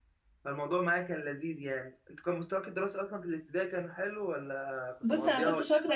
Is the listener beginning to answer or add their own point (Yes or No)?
Yes